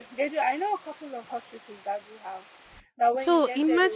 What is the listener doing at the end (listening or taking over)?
listening